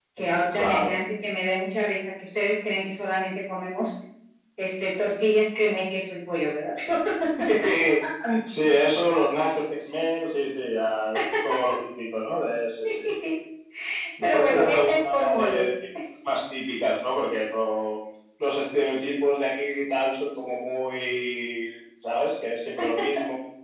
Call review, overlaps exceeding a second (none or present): present